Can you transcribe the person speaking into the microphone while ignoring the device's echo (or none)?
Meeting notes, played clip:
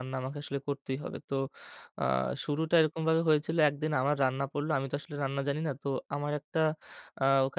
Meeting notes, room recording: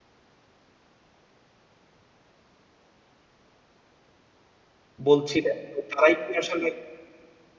বলছিলেন, তো তারাই কি আসলে